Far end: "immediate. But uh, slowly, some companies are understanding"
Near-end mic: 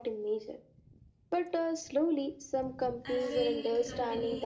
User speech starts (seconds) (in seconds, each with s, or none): 3.0 s